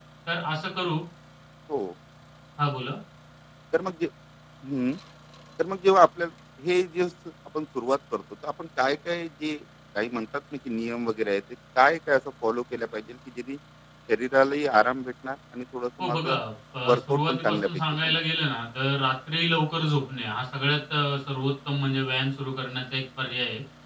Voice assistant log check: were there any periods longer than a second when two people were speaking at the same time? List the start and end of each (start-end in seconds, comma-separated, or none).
16.9-18.2